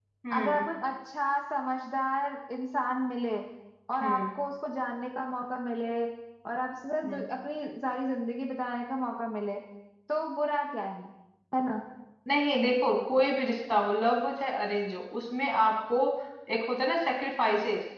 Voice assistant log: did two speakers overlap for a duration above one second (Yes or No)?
No